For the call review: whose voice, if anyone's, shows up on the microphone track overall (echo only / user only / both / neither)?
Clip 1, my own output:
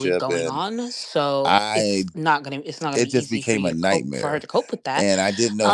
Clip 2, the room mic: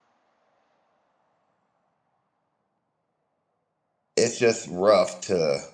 user only